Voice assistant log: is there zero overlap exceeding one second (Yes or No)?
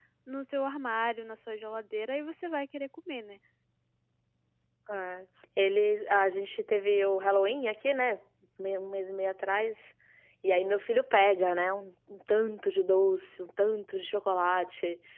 Yes